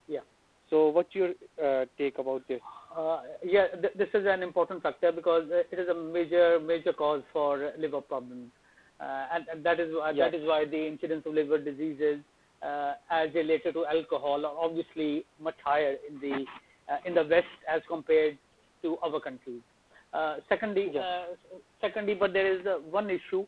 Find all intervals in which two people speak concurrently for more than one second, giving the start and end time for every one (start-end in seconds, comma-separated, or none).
none